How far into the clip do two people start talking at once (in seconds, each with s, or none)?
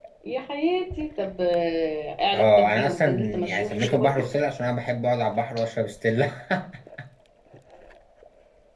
2.3 s